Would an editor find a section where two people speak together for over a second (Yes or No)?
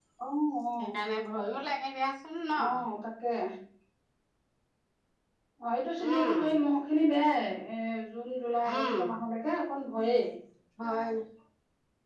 No